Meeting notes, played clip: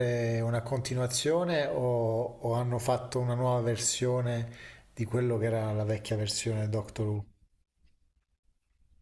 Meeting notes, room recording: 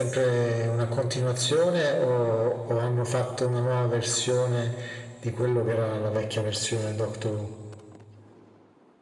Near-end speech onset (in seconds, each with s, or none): none